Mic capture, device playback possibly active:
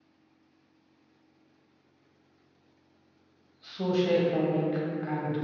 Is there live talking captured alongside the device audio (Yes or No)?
Yes